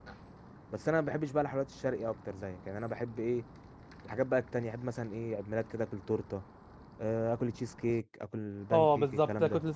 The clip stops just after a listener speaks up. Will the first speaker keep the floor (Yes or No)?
No